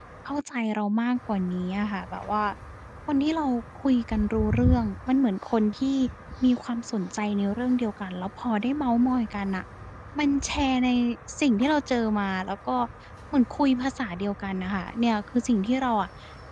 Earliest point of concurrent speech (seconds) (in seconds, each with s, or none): none